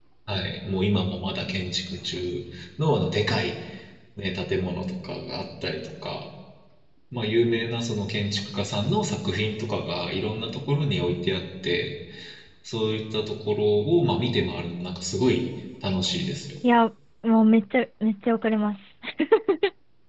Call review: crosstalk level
none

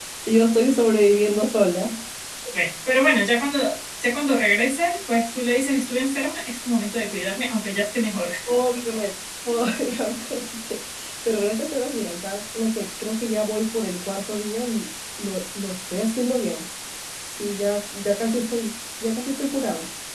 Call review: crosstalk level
none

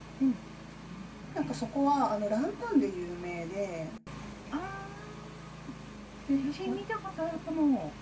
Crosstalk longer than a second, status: none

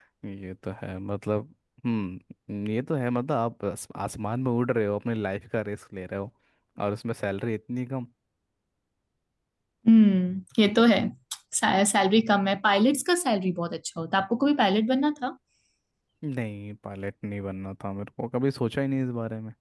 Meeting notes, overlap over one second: none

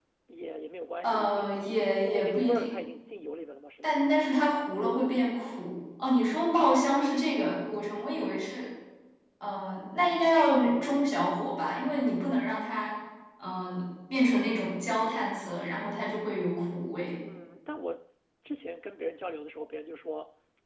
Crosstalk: present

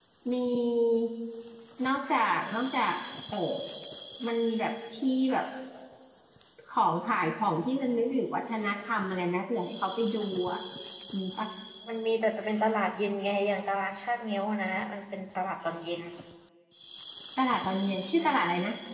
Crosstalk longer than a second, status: none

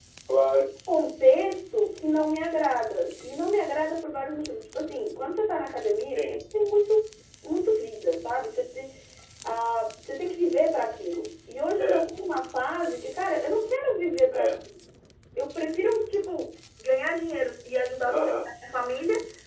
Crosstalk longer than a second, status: none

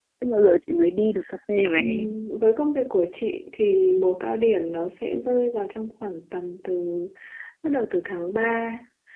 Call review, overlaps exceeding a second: none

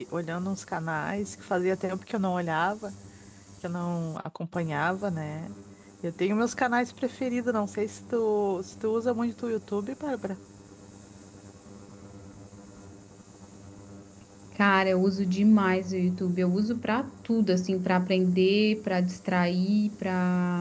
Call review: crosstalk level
none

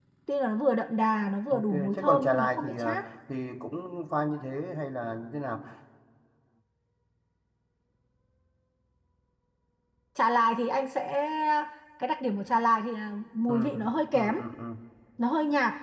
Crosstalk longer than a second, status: present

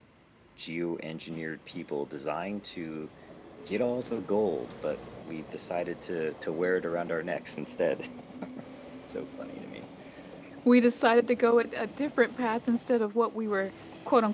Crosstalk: none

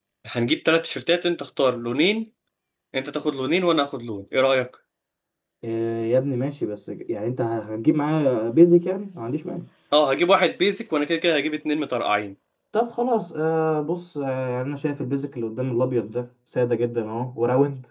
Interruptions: none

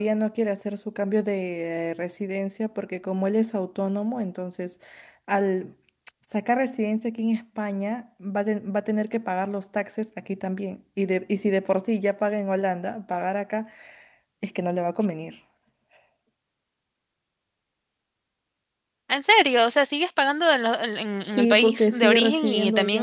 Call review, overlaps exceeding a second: present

